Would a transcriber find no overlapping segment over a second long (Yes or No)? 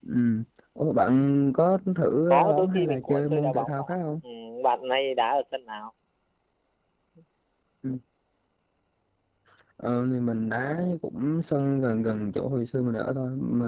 No